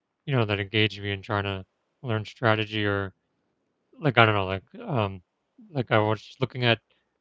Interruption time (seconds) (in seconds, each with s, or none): none